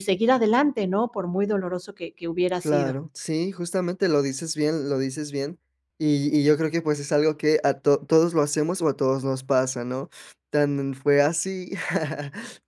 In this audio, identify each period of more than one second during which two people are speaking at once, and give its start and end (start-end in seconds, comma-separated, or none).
none